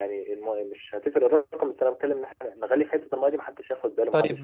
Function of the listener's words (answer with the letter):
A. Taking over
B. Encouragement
A